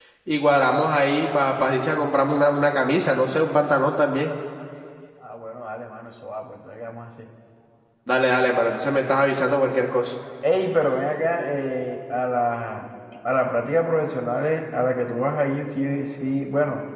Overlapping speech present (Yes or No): No